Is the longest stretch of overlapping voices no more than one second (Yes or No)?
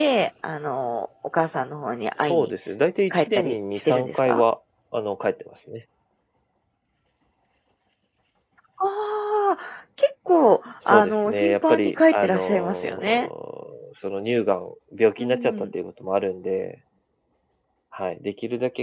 No